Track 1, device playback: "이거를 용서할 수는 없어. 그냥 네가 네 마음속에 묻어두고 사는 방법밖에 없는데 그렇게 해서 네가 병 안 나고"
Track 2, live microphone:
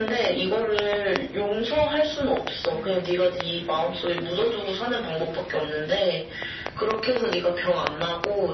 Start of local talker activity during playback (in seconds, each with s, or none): none